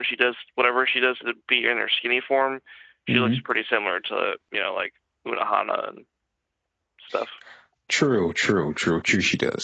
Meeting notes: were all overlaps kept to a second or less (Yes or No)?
Yes